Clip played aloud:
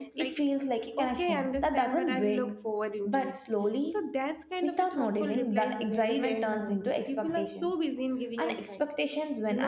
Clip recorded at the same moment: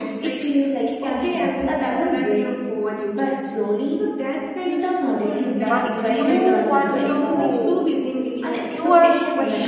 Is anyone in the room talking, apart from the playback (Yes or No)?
Yes